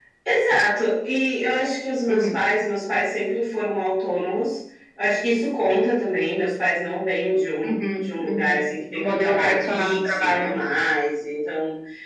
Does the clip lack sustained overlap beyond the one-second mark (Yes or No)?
No